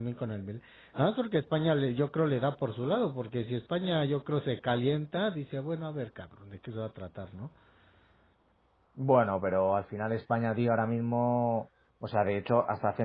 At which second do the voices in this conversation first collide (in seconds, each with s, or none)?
none